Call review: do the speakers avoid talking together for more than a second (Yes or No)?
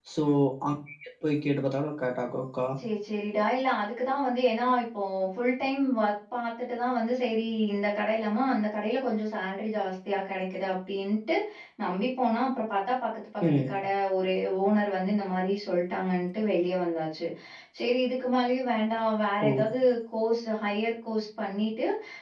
Yes